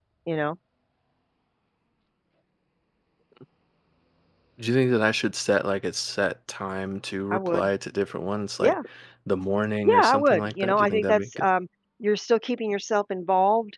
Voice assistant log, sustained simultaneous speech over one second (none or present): present